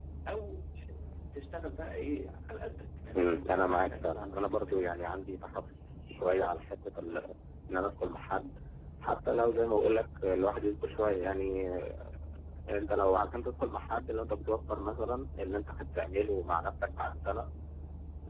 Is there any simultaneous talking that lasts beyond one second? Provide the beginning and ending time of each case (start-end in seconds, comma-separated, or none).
3.1-4.9